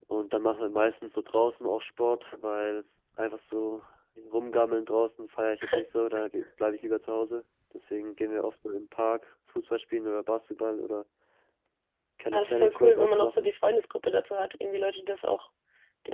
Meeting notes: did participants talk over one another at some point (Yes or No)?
Yes